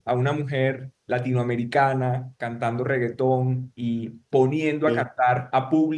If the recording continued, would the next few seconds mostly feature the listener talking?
No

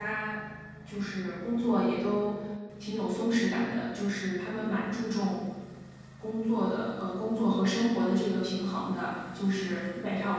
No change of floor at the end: Yes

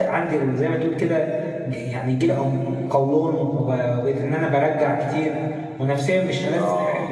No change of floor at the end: Yes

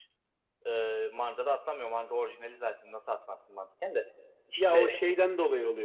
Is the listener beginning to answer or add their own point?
Yes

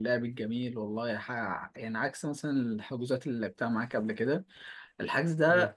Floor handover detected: No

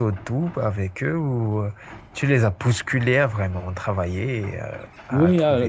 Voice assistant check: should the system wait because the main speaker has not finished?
No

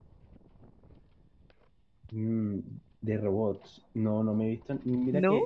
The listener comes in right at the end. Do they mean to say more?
No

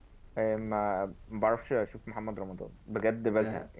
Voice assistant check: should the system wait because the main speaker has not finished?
No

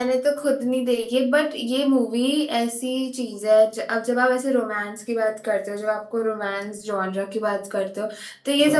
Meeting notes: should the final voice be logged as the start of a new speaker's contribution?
No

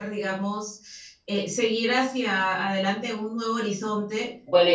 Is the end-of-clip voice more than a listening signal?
Yes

